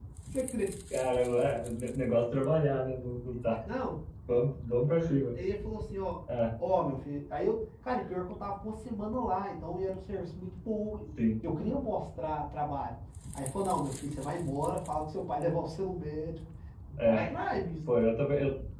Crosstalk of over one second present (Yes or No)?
No